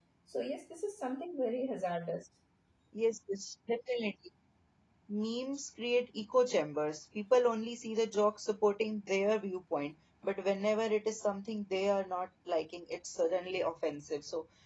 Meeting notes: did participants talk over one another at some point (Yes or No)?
No